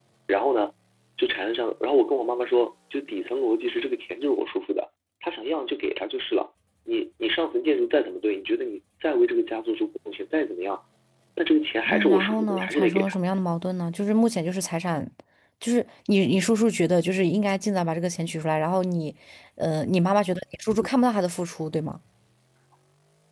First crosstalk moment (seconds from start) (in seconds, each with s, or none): 11.9 s